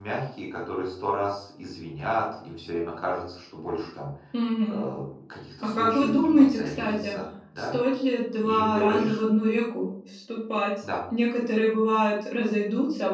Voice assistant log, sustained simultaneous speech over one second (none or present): present